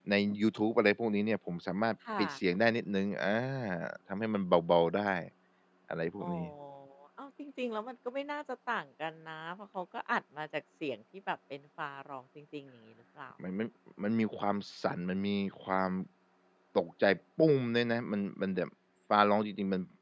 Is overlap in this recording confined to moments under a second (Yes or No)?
Yes